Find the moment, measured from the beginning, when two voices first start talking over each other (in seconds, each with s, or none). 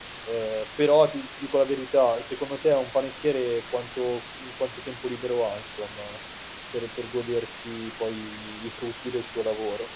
none